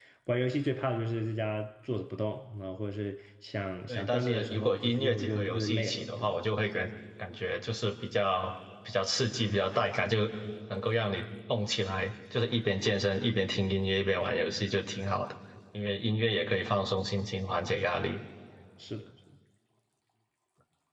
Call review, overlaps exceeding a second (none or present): present